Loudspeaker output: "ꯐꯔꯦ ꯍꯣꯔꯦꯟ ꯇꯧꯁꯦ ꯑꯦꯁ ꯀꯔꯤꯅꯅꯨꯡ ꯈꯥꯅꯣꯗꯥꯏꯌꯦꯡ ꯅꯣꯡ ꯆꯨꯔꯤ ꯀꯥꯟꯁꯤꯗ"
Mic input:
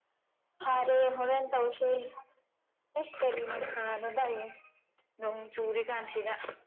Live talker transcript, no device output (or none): none